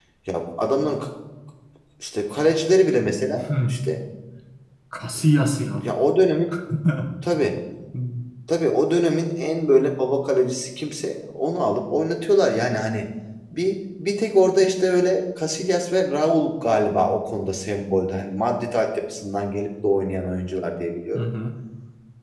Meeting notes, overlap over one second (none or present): none